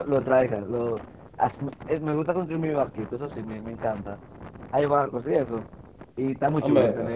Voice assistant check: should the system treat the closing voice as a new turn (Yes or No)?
Yes